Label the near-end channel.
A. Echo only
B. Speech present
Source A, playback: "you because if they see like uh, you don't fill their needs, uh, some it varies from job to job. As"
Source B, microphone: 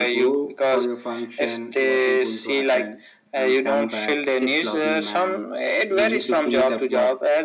B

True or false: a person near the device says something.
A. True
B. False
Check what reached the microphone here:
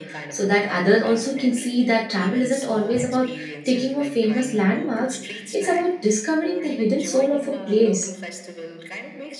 A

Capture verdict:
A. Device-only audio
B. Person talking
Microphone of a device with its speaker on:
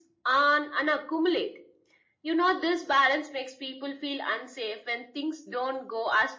A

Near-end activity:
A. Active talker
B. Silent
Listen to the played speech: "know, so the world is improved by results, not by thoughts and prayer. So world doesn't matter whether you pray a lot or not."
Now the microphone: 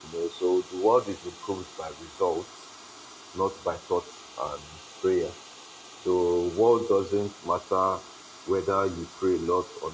B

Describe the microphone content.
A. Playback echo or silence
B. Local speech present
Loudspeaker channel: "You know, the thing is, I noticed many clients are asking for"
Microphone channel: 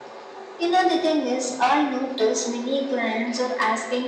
A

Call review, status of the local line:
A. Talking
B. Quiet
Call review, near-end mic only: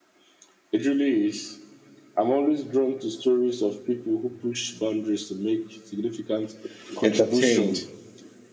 A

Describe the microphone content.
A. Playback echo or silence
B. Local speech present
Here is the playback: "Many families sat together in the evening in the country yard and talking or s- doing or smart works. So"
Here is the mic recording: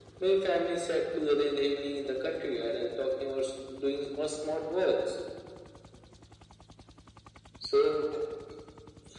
A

